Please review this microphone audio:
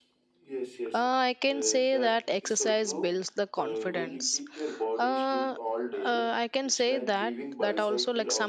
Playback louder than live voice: No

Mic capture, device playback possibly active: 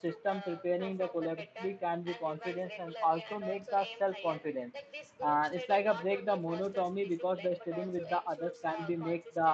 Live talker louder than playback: Yes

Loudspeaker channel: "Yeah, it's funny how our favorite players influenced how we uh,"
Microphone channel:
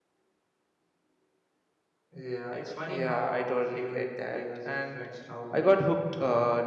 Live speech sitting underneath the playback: No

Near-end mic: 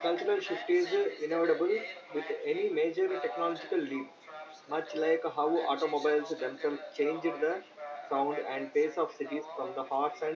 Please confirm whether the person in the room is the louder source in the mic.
Yes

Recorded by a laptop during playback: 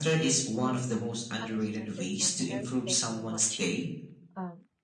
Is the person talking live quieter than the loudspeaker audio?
Yes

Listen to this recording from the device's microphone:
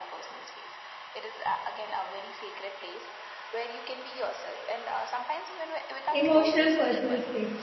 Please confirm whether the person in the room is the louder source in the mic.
Yes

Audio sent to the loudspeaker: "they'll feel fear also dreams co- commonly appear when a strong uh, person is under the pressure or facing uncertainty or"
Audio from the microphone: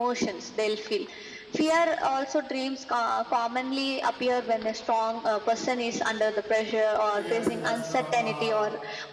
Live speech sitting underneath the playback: Yes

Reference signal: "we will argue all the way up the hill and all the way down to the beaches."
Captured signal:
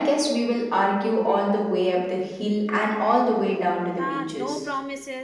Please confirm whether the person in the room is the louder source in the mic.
No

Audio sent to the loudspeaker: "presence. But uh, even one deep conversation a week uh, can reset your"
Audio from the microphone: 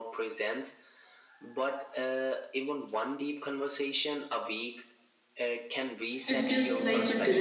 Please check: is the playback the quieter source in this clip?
Yes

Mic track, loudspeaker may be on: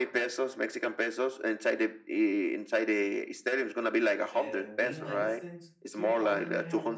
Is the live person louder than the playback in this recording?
No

